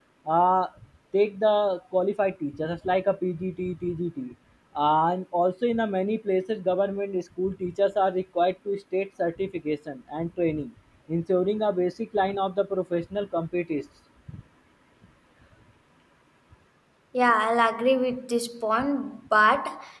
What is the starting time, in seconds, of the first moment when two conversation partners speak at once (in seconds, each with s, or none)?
none